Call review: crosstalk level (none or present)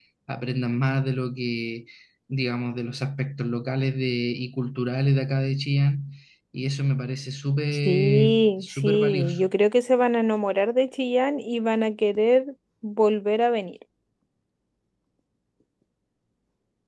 present